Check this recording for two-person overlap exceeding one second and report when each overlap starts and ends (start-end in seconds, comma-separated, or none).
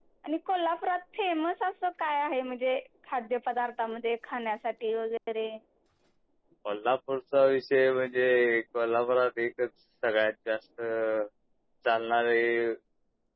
none